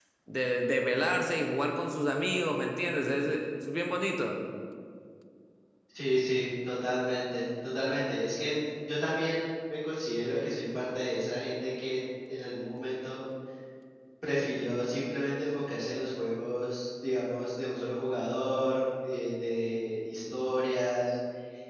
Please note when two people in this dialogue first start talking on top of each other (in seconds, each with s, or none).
none